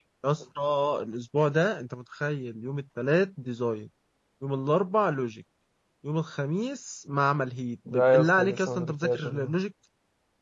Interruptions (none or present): present